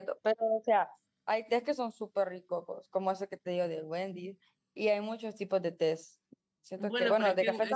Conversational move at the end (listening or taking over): taking over